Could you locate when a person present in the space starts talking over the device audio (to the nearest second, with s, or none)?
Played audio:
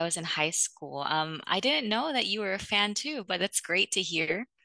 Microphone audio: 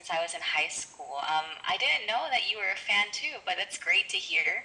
none